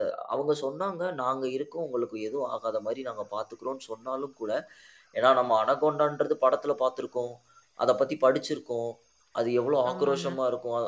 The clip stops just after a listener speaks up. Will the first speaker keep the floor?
Yes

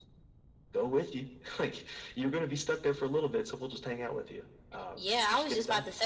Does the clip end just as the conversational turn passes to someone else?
Yes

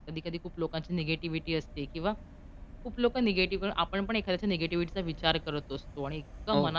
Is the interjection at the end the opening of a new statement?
No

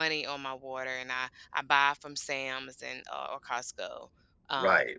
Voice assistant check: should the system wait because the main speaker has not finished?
No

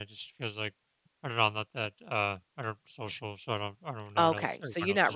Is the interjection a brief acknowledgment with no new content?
No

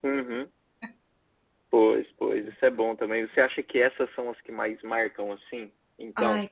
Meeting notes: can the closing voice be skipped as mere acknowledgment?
No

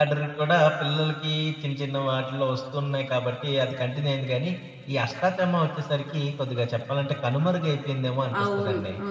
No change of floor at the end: No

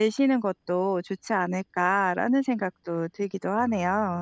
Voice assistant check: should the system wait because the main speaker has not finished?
No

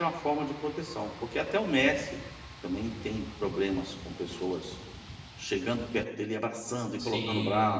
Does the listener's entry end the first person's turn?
Yes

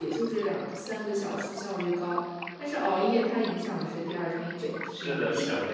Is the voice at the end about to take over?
Yes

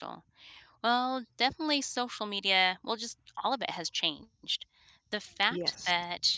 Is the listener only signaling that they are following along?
Yes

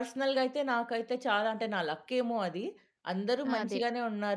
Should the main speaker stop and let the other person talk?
No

